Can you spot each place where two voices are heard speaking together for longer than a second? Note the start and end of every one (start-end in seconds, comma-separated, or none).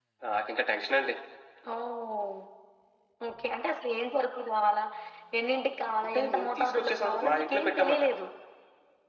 6.0-8.0